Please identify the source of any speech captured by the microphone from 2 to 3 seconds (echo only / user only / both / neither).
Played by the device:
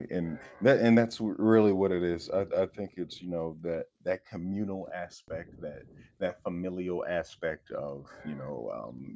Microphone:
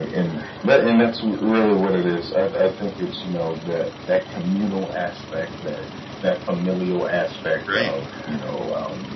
echo only